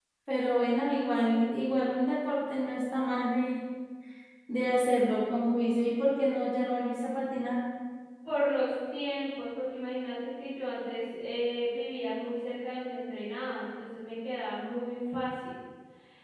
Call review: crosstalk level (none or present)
none